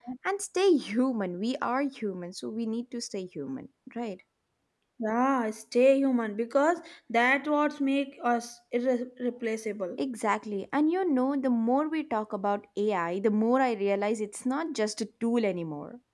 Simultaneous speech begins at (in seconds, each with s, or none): none